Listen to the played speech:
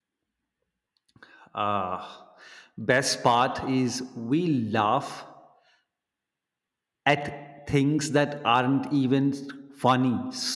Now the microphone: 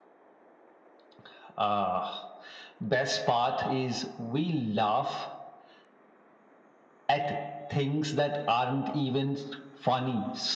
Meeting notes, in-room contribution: none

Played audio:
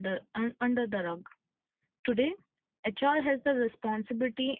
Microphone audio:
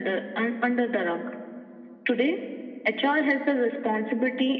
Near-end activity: none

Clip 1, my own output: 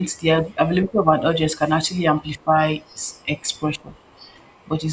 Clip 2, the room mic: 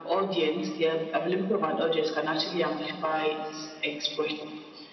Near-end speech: none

